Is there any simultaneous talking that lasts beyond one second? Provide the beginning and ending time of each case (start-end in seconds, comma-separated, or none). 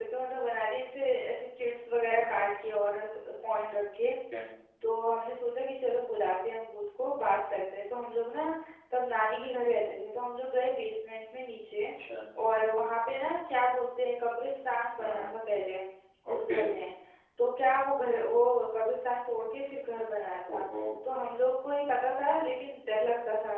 none